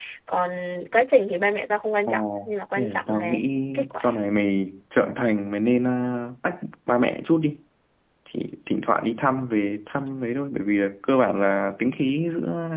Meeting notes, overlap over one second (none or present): present